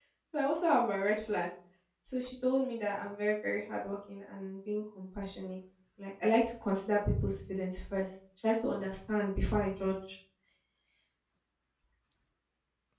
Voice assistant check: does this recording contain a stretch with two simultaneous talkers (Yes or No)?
No